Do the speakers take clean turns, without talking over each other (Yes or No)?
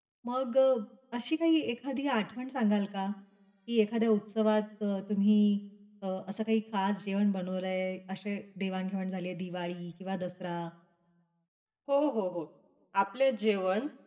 Yes